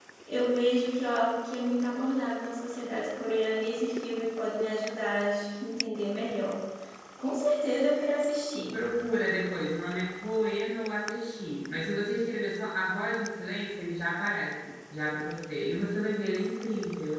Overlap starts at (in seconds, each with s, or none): none